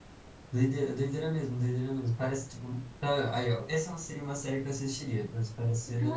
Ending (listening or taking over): taking over